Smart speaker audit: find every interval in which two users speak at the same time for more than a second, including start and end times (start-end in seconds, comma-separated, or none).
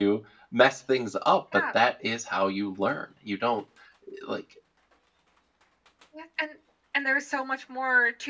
none